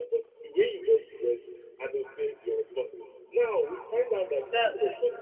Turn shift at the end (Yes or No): No